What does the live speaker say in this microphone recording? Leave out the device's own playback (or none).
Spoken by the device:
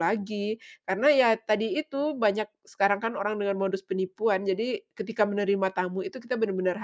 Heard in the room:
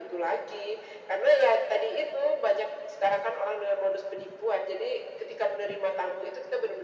none